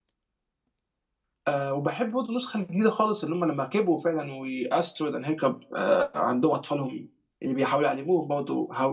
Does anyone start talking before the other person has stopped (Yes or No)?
No